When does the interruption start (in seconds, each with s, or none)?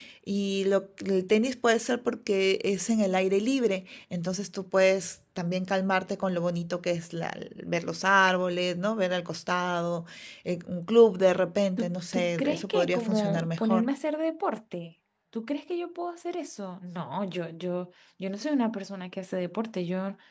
11.8 s